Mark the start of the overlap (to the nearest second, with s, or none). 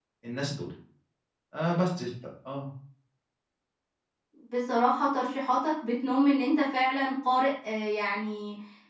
none